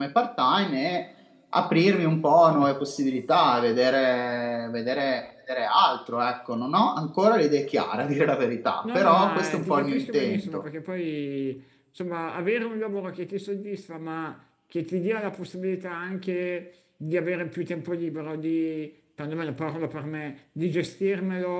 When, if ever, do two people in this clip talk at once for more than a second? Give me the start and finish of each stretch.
8.9-10.7

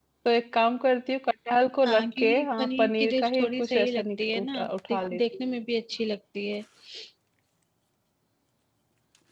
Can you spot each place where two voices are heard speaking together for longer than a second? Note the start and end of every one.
1.9-5.4

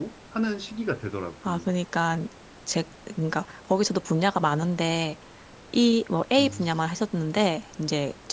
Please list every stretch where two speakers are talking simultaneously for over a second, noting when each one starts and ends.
none

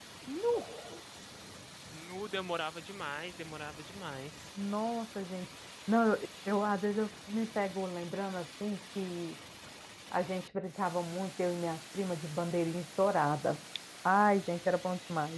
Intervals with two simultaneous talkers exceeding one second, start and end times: none

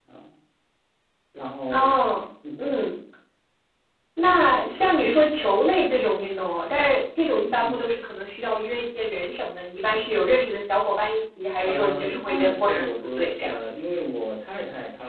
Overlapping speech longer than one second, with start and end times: 11.6-13.5

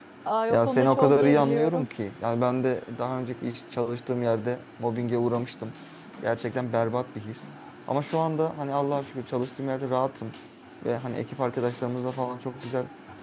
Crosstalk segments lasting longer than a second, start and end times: 0.5-1.9

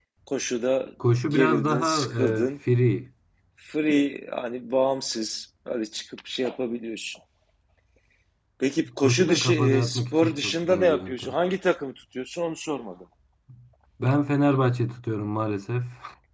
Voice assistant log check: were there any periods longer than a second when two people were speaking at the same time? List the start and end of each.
1.3-2.5, 9.0-11.3

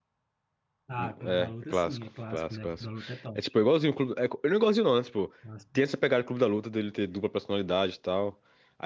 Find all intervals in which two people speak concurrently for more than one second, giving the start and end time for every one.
1.0-2.9

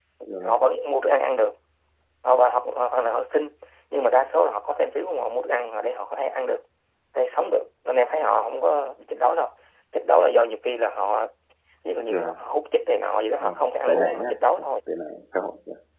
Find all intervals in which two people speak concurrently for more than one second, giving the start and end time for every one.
13.4-14.7

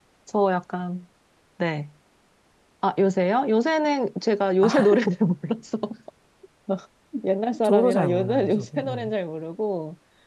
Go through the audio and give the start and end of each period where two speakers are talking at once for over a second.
7.6-9.1

